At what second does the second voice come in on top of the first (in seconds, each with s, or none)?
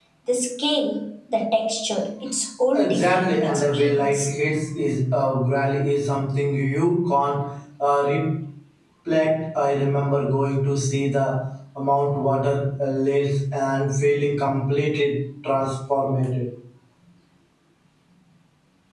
2.7 s